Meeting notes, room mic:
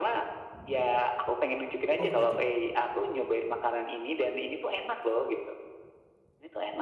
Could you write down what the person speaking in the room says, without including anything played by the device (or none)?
Oh gitu?